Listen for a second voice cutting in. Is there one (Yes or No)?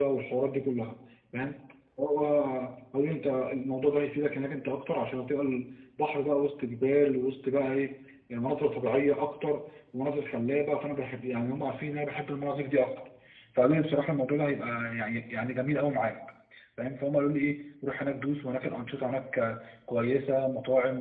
No